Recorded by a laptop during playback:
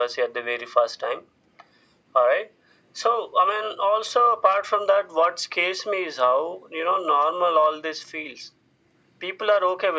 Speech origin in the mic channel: echo only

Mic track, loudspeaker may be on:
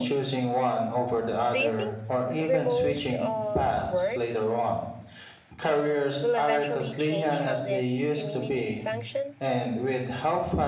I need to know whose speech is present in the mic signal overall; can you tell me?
both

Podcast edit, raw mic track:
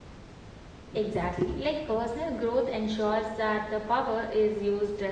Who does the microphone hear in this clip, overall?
user only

